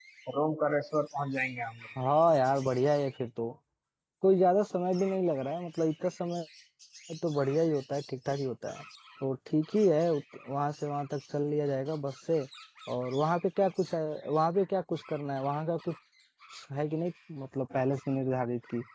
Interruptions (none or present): none